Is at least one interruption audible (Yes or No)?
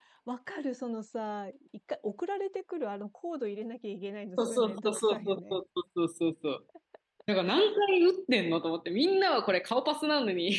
Yes